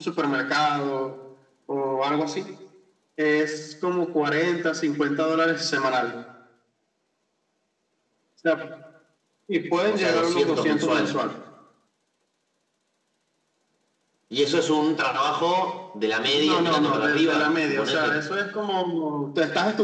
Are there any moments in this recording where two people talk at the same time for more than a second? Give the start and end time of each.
9.9-11.2, 16.2-18.2

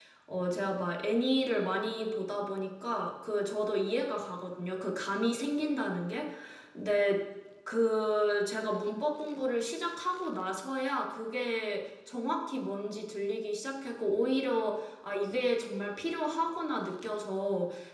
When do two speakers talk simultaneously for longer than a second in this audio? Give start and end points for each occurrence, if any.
none

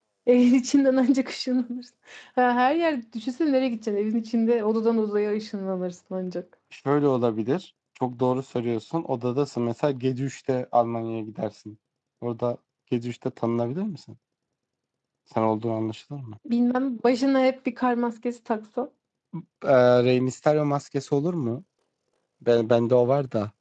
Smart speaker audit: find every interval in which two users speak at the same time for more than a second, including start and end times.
none

